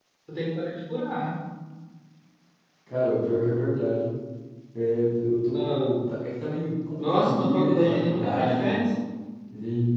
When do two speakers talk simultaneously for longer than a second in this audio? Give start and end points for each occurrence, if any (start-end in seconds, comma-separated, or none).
7.0-8.8